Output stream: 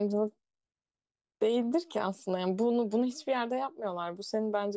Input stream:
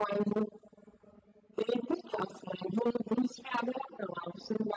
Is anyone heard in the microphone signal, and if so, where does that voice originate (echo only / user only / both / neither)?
echo only